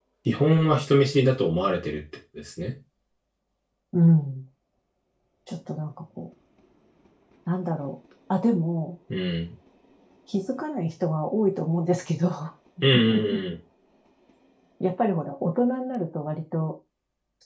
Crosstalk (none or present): none